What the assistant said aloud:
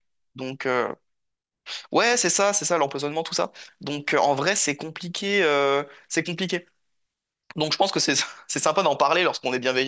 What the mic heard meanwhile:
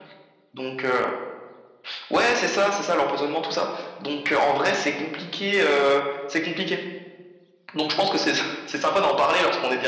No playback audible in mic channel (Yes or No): No